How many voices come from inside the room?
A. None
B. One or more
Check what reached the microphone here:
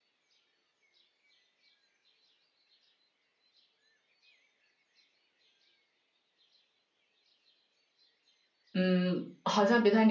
B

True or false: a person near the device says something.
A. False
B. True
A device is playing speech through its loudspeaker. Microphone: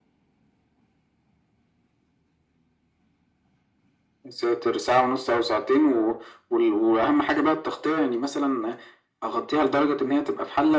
A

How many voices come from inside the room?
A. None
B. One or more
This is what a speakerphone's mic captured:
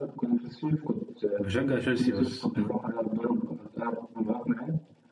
B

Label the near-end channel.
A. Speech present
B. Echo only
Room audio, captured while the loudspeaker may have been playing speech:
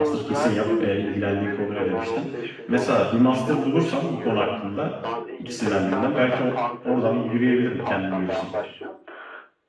A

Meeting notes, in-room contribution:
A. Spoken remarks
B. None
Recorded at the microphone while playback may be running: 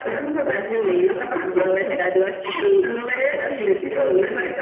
B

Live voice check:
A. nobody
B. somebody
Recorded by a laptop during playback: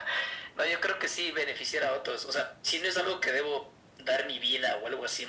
A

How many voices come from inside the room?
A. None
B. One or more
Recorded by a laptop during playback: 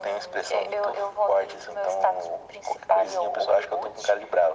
A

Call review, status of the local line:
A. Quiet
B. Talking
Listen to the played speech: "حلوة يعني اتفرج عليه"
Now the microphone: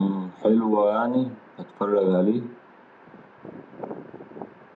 A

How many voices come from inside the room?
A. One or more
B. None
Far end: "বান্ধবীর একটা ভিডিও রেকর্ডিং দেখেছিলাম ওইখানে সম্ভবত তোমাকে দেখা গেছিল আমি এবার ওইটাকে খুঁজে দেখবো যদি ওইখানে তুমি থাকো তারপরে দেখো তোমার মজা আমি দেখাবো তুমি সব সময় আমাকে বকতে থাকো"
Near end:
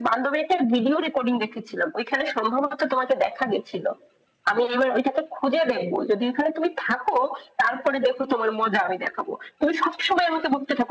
B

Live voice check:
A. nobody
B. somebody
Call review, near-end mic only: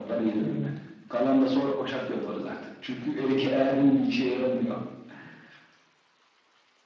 B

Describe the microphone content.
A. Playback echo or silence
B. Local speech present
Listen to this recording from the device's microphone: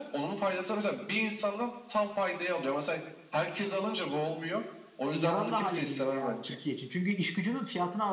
B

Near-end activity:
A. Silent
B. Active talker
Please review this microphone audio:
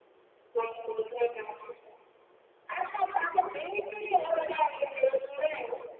A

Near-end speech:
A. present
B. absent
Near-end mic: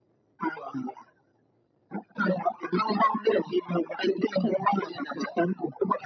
B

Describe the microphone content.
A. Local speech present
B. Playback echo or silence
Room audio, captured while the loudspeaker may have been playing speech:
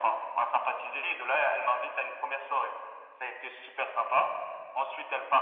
B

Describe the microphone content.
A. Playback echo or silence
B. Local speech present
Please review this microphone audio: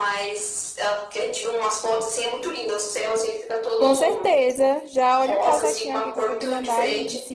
B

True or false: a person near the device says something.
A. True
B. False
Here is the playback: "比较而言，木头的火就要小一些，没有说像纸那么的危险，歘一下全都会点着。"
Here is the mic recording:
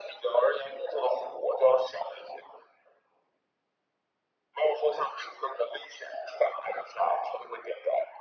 B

